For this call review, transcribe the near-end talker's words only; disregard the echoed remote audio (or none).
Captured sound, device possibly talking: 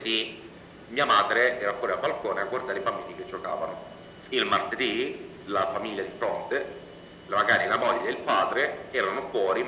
none